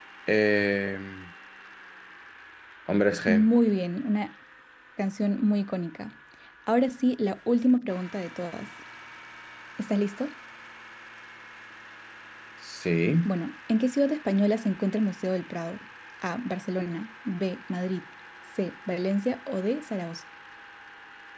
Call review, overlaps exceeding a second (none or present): none